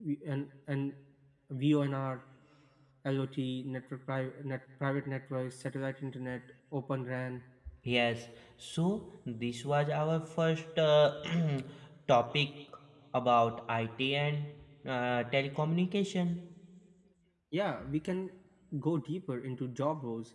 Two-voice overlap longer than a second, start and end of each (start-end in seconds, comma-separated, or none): none